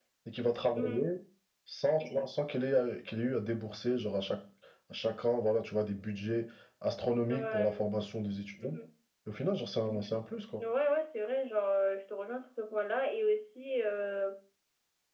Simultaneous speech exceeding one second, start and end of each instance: none

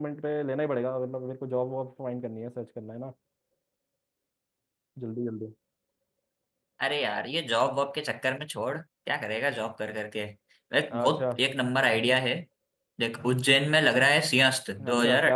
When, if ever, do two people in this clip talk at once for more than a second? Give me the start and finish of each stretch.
none

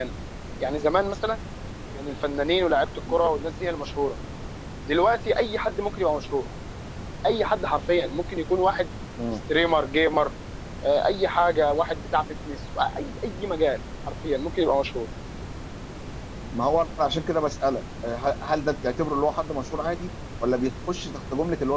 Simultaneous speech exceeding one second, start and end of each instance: none

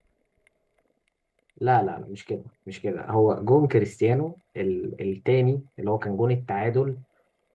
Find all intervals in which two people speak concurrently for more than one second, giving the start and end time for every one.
none

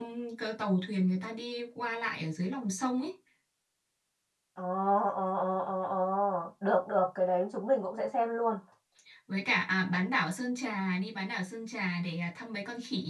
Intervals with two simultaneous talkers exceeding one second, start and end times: none

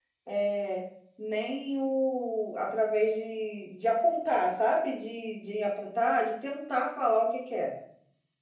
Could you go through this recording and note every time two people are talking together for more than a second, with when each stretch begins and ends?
none

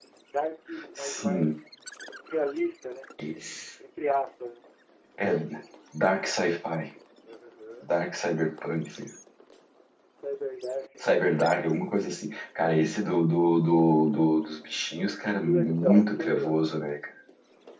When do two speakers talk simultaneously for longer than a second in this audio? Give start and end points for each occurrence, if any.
15.2-16.6

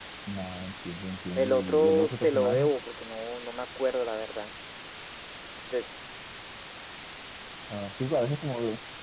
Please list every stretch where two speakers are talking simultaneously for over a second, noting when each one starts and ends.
1.4-2.7

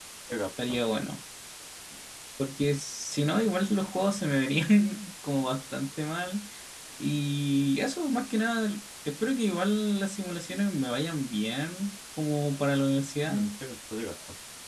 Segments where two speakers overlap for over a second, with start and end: none

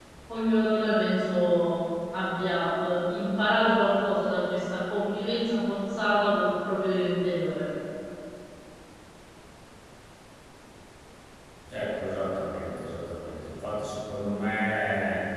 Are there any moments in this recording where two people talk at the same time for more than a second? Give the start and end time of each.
none

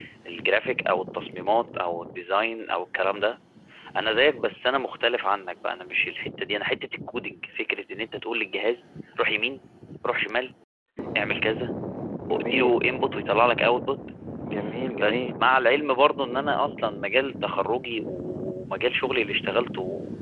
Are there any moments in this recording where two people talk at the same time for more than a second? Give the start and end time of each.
none

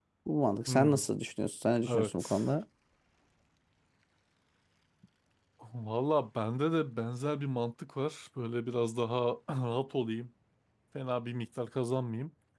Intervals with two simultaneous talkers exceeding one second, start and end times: none

